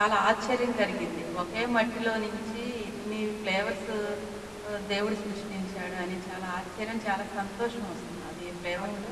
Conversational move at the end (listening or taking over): taking over